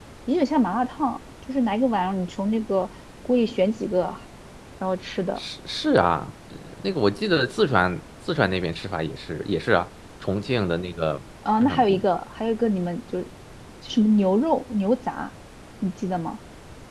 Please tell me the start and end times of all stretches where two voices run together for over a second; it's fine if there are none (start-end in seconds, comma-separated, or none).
none